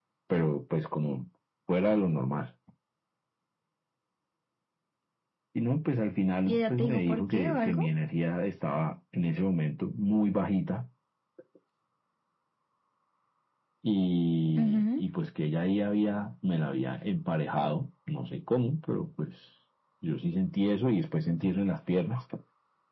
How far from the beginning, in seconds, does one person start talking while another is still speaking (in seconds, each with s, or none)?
6.5 s